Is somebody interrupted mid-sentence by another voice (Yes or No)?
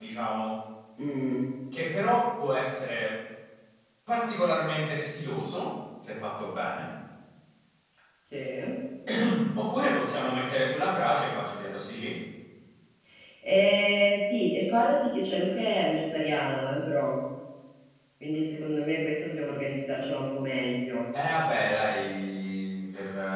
No